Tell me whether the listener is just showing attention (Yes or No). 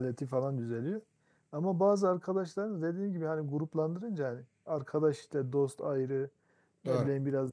Yes